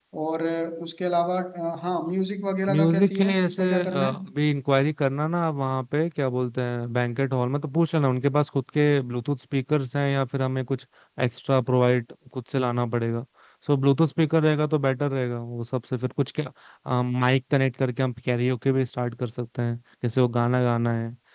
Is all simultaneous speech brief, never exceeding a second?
No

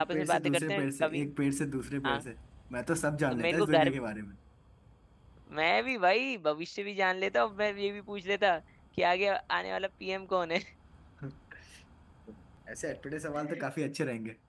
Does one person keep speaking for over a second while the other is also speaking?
Yes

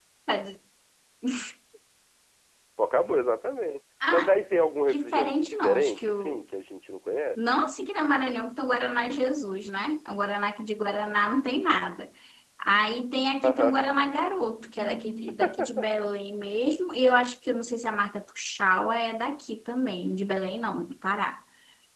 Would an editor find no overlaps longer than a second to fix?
No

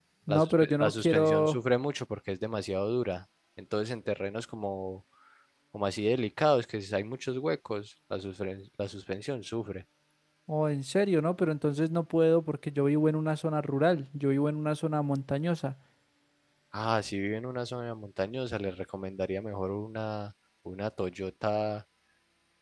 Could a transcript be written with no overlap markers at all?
No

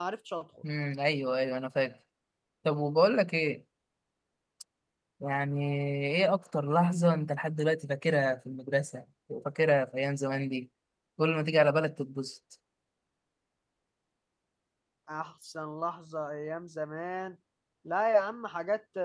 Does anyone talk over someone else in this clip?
No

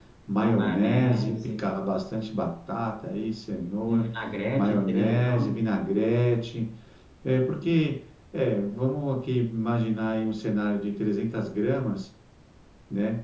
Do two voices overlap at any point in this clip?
Yes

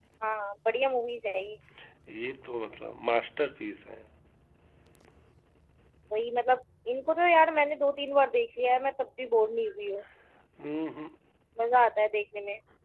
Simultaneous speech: No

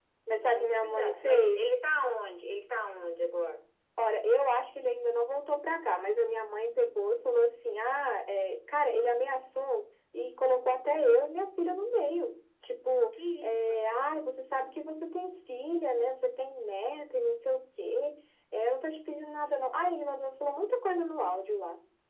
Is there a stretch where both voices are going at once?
Yes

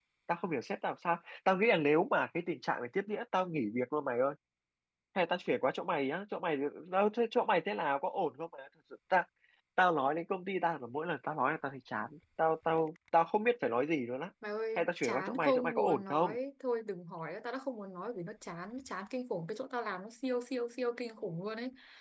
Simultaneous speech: Yes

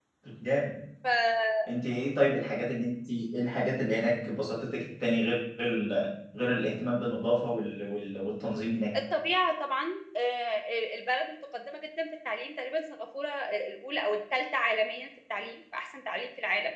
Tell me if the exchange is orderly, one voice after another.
Yes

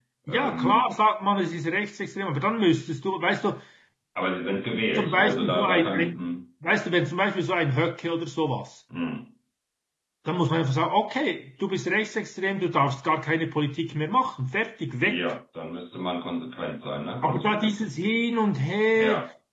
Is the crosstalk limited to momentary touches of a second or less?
No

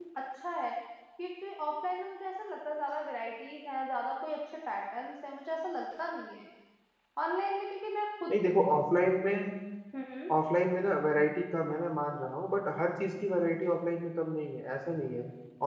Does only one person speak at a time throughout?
Yes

